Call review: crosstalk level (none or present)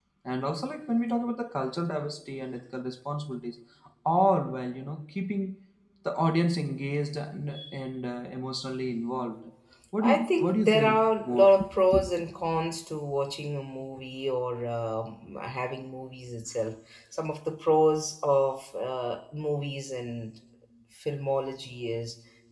present